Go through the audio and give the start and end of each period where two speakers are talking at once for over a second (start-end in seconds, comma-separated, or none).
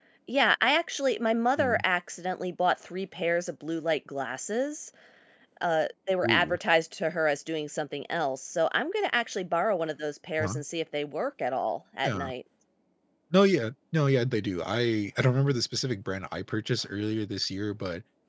none